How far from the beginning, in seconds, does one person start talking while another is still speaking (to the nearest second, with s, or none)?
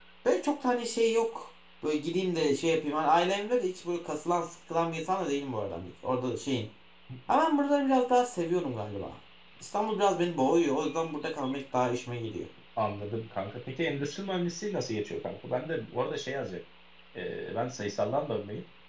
none